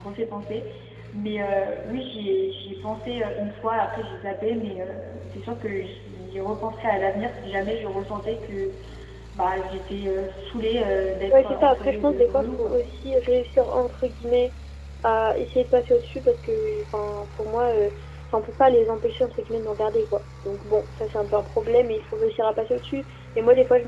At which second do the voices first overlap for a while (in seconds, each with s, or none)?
11.3 s